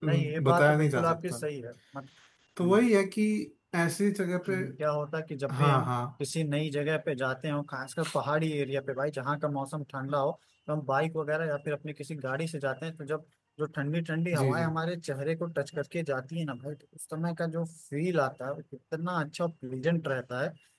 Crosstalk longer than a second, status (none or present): present